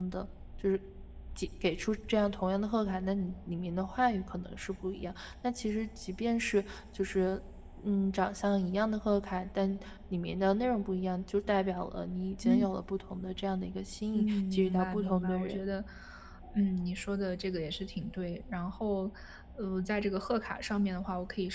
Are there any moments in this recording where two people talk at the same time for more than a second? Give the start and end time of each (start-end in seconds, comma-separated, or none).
14.1-15.6